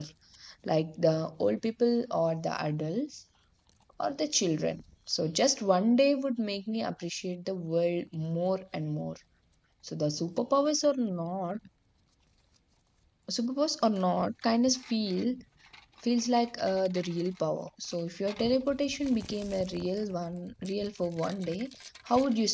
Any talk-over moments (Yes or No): No